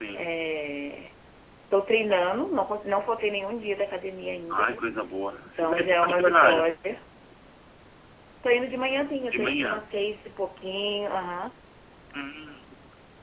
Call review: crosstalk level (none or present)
present